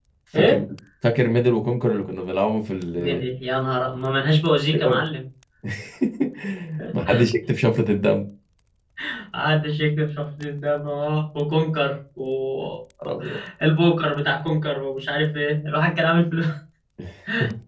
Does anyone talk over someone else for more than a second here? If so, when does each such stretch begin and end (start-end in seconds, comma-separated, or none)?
none